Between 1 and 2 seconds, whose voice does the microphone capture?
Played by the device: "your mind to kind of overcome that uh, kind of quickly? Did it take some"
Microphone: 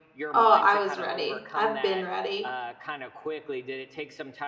both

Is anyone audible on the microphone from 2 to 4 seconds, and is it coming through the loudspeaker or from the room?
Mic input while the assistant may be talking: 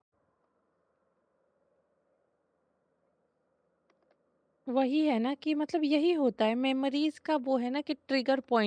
neither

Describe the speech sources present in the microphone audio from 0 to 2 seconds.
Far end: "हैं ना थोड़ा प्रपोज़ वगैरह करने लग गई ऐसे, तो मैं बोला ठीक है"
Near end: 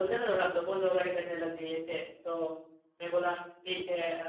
echo only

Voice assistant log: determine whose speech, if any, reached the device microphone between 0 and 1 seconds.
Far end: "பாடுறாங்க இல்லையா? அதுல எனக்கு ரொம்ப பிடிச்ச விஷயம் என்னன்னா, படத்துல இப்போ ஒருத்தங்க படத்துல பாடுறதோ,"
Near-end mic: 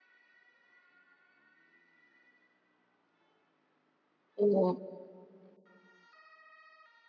neither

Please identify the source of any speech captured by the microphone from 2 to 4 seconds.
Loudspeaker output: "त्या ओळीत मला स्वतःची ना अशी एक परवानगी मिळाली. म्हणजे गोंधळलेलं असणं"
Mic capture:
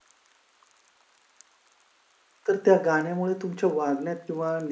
user only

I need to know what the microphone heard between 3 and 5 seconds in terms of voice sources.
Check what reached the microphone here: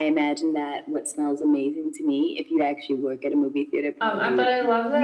both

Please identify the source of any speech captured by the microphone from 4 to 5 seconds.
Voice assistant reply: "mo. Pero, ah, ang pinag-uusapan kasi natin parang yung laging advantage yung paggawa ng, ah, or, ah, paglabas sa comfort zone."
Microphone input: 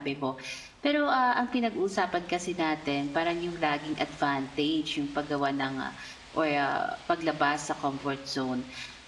echo only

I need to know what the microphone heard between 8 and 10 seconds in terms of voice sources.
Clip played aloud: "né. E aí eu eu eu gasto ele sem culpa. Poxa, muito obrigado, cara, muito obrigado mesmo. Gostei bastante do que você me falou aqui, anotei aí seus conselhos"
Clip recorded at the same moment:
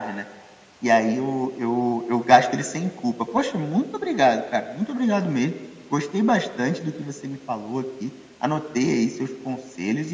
echo only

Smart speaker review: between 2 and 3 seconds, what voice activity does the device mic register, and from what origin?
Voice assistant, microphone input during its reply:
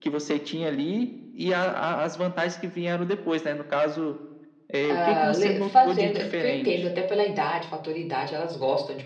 echo only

